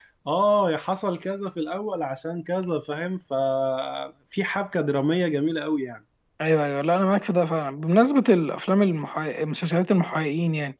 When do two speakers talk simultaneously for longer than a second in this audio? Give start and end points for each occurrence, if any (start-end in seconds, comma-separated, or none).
none